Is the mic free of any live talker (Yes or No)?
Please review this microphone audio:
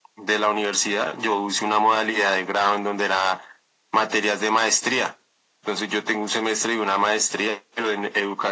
Yes